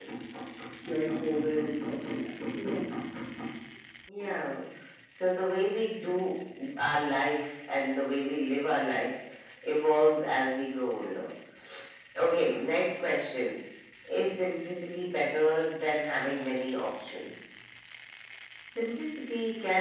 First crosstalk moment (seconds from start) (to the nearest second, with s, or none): none